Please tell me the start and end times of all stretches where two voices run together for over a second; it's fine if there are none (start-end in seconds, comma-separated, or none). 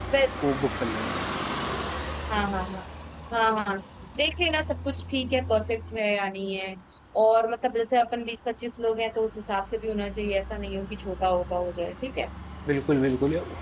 none